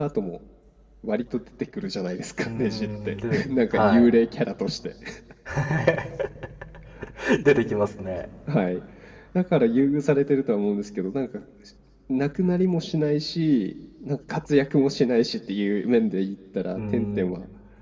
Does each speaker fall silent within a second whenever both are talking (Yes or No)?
No